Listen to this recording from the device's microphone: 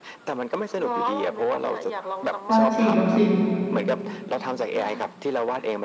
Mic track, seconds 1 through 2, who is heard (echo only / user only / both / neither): echo only